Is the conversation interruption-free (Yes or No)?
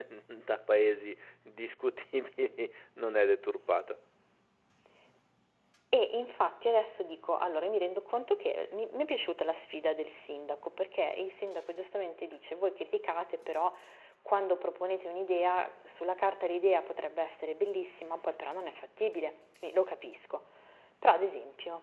Yes